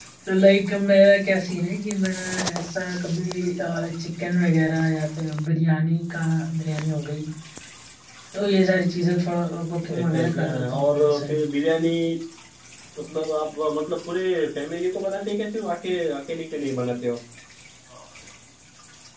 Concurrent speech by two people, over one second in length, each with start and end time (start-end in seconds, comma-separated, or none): 10.0-11.3